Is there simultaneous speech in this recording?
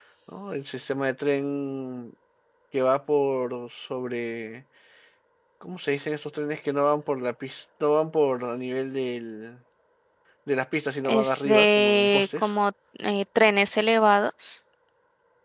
Yes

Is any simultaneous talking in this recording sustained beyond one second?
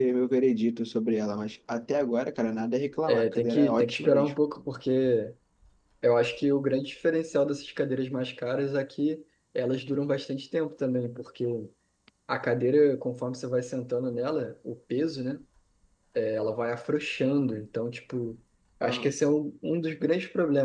Yes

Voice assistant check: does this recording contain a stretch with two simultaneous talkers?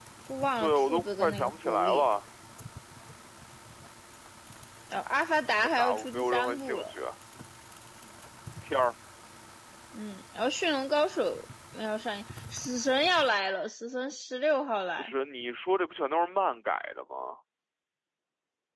Yes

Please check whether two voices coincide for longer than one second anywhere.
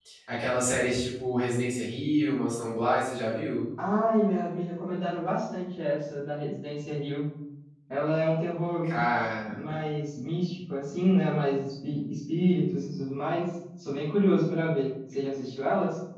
No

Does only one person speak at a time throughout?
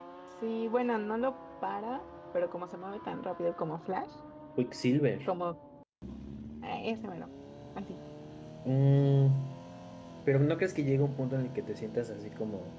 Yes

